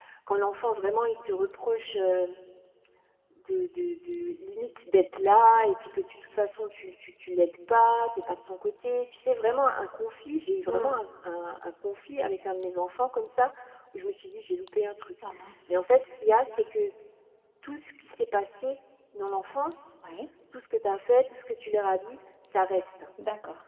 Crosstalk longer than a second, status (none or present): none